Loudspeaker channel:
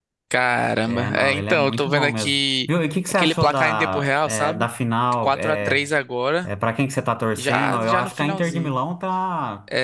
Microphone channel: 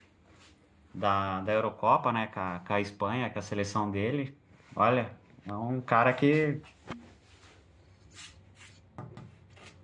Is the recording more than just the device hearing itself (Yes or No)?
Yes